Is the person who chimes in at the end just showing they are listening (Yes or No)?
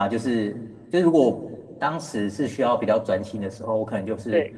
Yes